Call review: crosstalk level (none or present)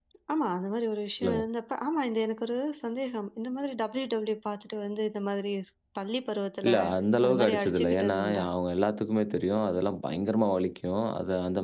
present